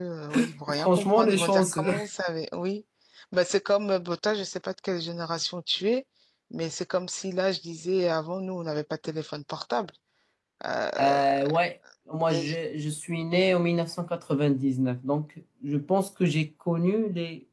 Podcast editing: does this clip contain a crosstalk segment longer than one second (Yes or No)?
Yes